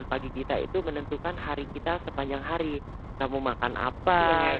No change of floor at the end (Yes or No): Yes